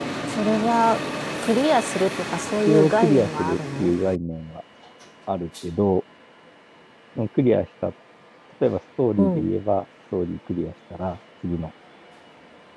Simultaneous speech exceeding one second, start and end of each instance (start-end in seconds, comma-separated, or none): 2.7-3.9